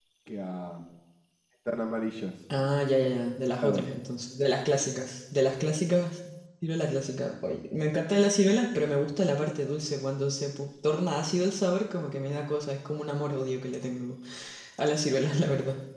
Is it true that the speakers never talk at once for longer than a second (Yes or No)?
Yes